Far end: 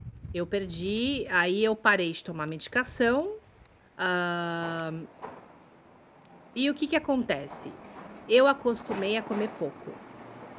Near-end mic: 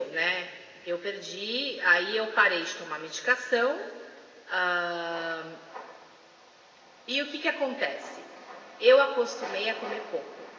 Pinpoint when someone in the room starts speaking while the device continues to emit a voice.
none

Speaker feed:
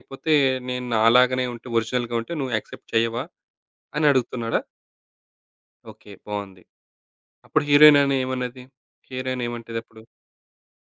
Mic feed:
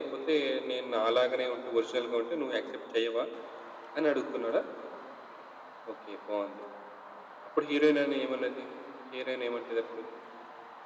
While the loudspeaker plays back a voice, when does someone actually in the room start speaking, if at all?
none

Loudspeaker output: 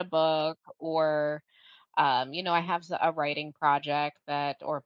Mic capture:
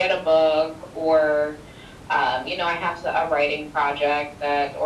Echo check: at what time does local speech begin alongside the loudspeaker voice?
none

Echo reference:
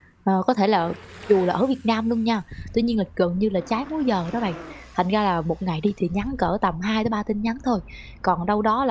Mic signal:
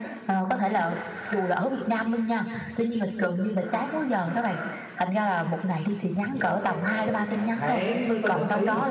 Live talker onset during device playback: 6.4 s

